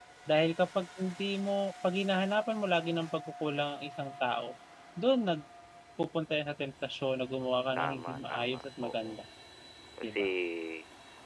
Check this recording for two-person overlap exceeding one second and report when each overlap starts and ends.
7.8-9.2

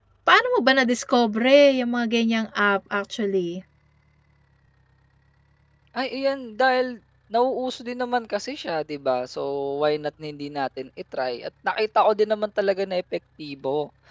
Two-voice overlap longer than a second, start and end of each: none

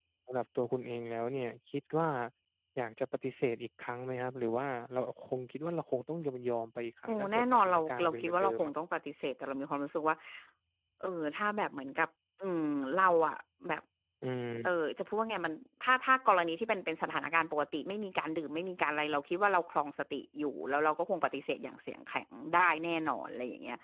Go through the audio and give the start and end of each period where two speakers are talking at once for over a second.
7.1-8.7

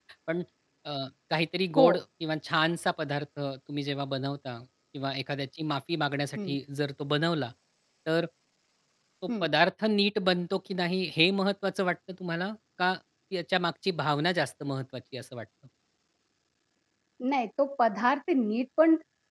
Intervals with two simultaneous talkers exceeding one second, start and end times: none

